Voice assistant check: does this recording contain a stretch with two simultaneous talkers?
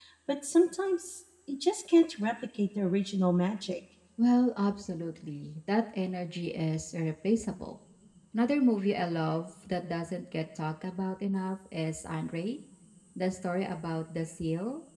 No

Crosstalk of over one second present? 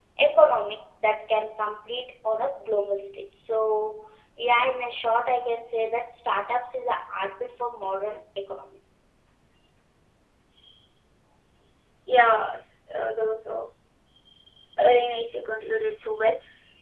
No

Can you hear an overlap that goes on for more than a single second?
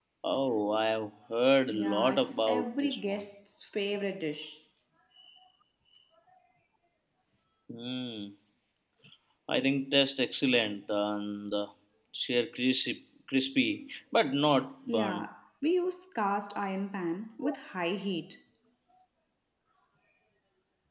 Yes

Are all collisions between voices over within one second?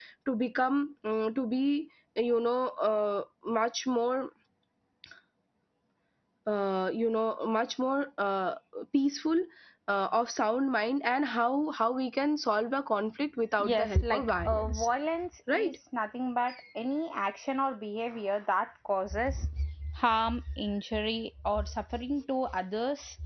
No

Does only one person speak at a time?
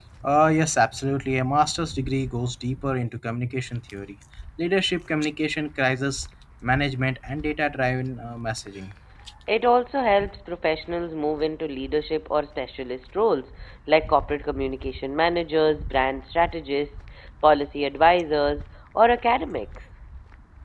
Yes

